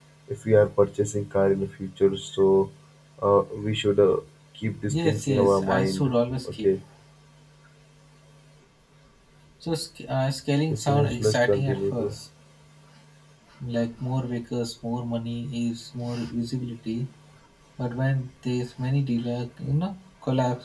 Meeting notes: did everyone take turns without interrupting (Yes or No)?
No